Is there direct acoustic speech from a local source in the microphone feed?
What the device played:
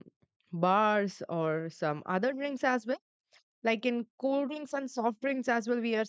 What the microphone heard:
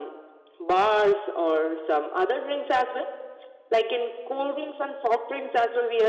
No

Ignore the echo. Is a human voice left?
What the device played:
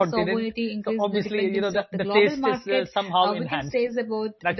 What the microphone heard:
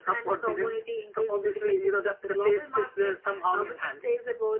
No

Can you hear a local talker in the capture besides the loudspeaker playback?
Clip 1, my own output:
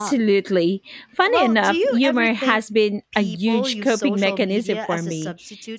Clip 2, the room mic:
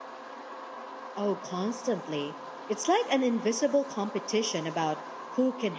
Yes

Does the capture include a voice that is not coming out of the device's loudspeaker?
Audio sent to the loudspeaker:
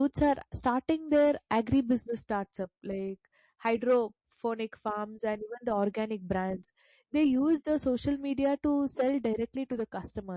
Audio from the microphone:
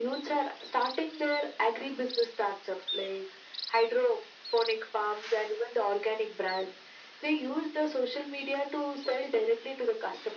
No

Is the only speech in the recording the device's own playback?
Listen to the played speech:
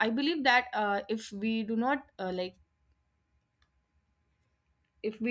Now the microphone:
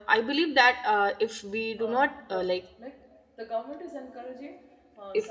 No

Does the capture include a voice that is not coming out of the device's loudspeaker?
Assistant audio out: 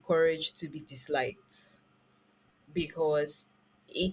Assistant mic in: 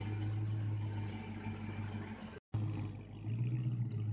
No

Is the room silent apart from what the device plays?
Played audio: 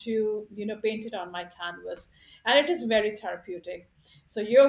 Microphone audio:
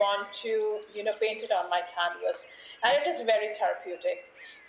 Yes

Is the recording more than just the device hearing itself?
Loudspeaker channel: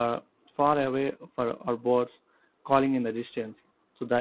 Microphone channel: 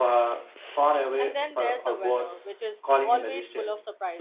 Yes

